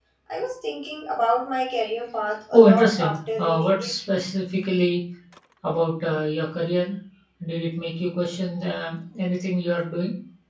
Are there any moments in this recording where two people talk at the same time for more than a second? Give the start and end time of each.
2.5-3.9

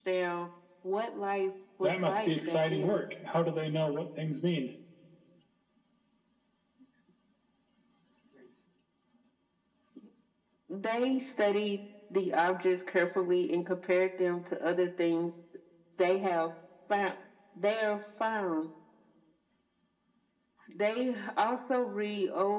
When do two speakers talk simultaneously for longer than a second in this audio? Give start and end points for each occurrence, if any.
1.8-3.0

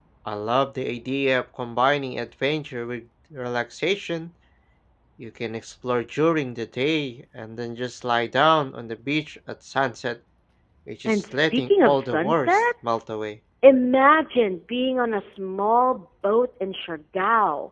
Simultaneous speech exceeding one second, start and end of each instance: 11.1-13.0

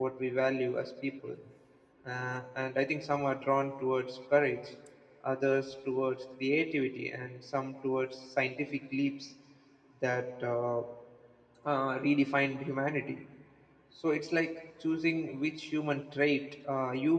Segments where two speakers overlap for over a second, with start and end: none

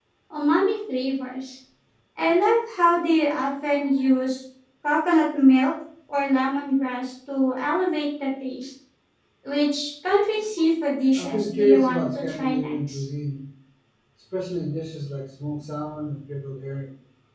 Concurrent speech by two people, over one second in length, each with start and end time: 11.2-13.0

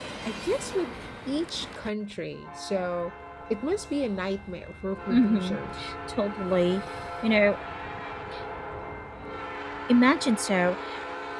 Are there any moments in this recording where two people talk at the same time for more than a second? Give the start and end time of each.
none

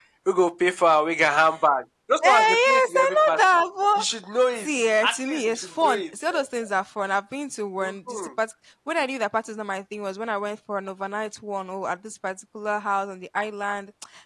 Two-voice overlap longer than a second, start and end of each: 2.2-3.4, 4.6-6.7

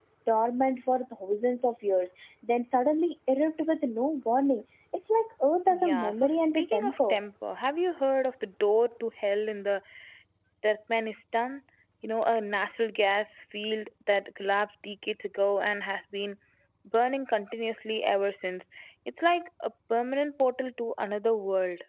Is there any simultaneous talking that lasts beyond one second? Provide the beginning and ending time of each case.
5.7-7.1

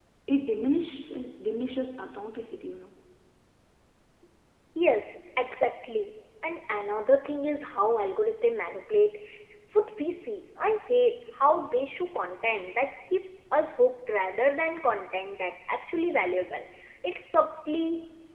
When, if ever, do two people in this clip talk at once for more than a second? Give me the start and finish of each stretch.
none

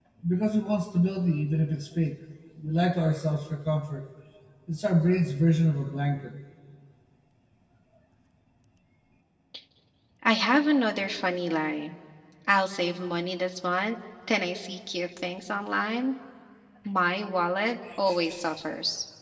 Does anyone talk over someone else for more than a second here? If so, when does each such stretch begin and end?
none

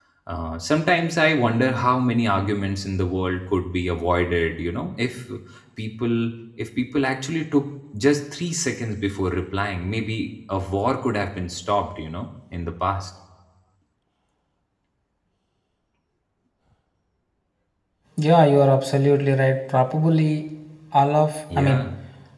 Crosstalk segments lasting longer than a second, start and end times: none

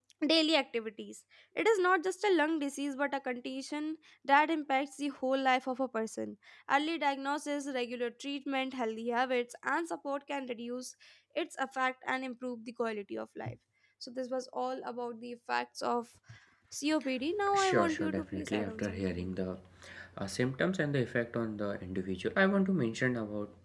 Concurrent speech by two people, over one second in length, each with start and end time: 17.5-19.3

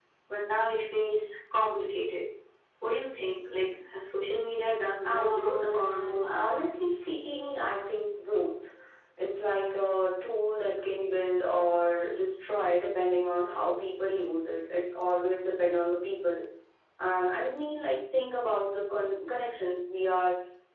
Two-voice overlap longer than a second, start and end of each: 5.0-6.6

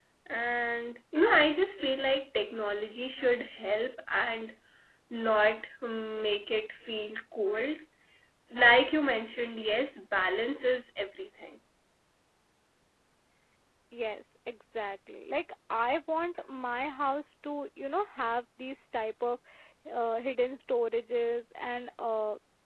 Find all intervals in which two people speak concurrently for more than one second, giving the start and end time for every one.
none

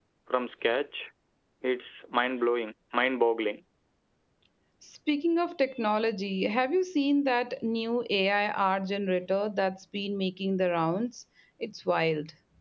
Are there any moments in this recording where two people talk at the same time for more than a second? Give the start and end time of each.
none

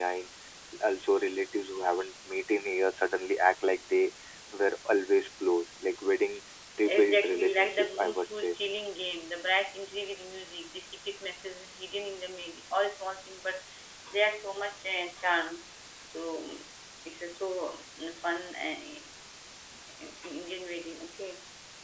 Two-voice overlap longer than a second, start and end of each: 6.9-8.6

